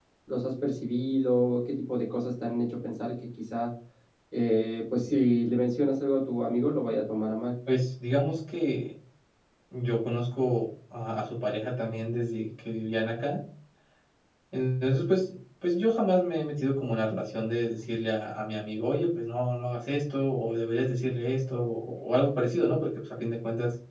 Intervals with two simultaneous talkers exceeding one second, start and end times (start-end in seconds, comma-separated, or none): none